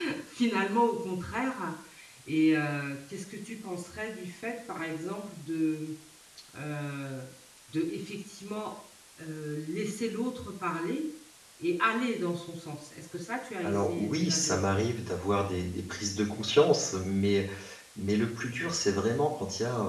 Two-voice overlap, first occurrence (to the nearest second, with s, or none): 14 s